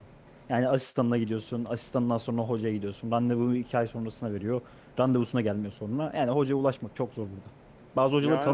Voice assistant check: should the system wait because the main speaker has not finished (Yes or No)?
No